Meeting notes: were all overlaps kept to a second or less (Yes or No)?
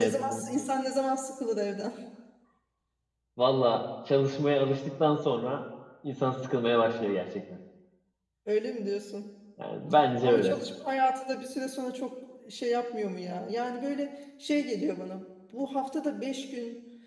Yes